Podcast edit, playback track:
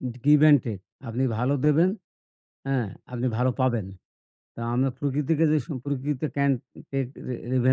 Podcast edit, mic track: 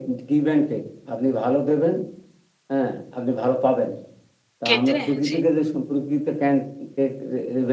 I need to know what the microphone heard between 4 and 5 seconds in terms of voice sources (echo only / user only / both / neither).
both